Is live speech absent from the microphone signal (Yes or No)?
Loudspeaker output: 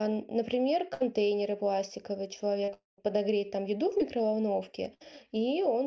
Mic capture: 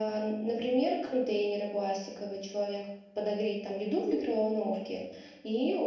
Yes